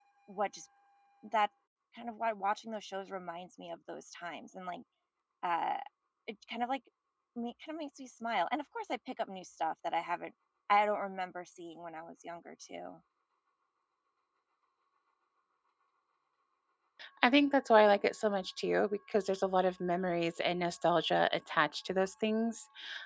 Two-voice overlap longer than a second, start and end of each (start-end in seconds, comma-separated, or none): none